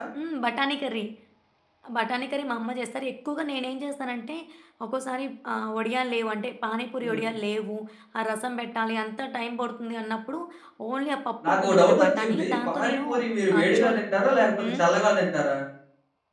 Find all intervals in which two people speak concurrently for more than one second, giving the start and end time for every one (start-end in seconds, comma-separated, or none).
11.5-13.0